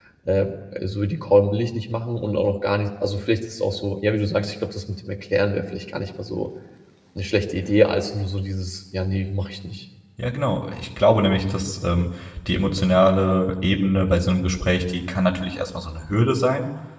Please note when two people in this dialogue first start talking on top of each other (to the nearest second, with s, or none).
none